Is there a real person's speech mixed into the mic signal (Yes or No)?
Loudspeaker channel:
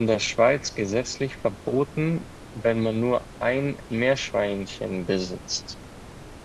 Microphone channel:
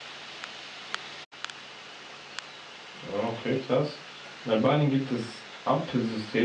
Yes